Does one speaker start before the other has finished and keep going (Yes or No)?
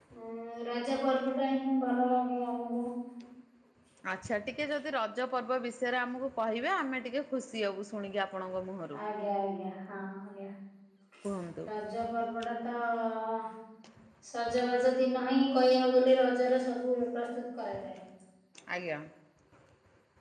No